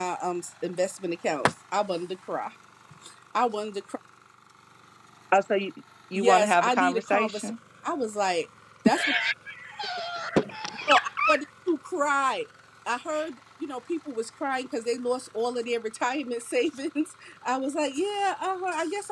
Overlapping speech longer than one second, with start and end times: 6.1-7.5

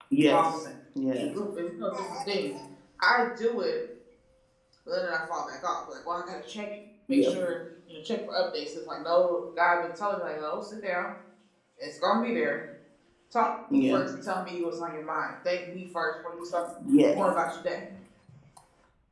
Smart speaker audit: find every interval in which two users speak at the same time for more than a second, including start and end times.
none

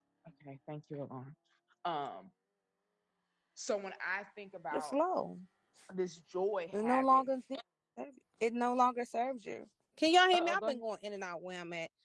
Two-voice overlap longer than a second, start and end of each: none

